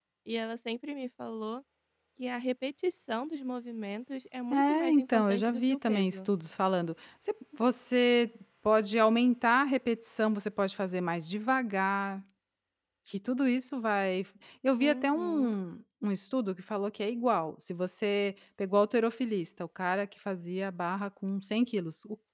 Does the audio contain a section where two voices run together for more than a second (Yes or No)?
Yes